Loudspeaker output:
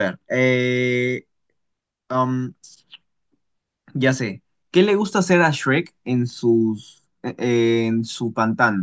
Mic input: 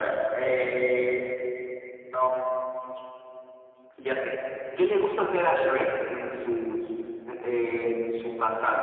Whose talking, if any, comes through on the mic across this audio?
echo only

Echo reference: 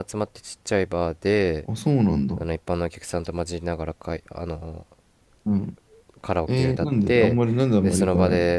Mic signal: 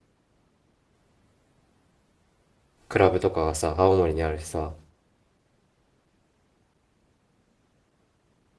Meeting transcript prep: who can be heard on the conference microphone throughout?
user only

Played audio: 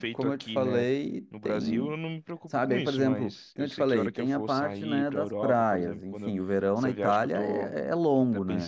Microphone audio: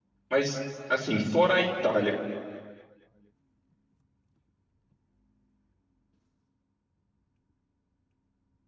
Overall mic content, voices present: user only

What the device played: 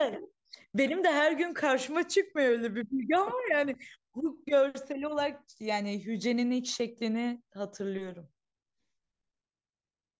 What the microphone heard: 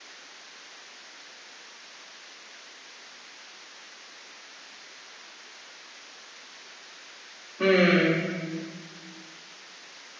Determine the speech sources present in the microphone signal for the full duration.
user only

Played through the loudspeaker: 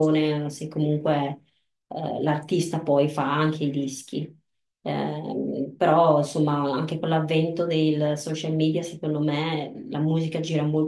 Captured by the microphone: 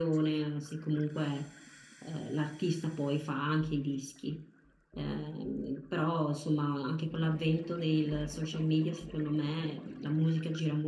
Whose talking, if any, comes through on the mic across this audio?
echo only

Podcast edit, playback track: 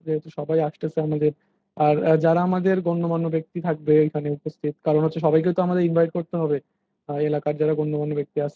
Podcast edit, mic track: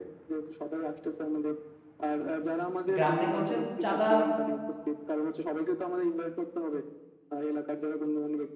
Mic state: both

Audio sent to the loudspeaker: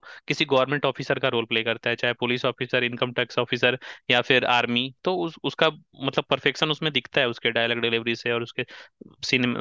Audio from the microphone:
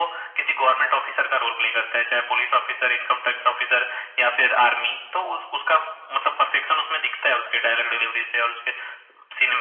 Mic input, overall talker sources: echo only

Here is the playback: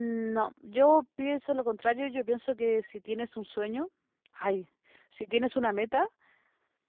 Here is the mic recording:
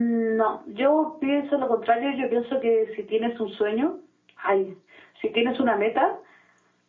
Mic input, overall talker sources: echo only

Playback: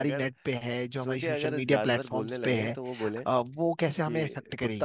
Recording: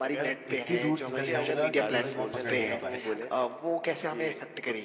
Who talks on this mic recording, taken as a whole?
both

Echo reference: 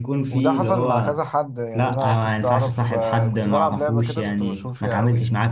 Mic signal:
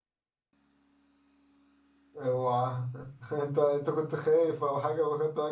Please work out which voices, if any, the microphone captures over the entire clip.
user only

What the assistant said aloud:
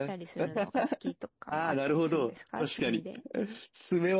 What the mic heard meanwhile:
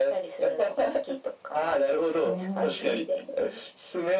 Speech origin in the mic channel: both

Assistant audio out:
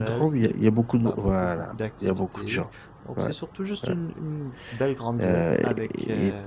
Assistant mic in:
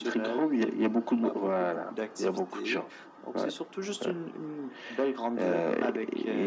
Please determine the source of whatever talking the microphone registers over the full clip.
echo only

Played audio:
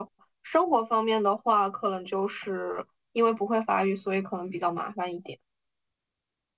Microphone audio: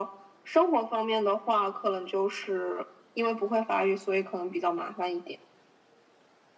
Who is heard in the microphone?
echo only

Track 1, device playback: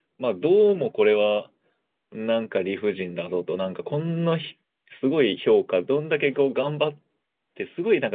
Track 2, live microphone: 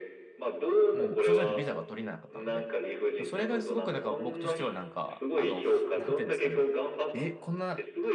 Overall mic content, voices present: both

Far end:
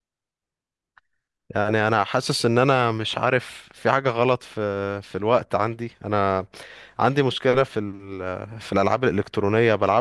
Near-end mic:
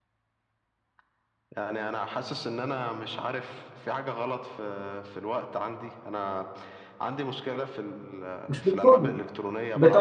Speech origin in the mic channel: both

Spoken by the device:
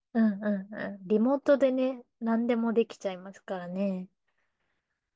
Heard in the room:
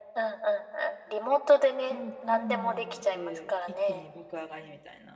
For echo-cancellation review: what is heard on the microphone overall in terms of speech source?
both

